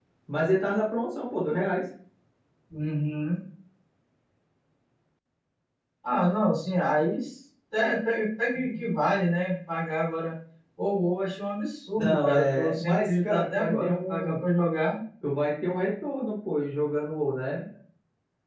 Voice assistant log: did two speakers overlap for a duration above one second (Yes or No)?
Yes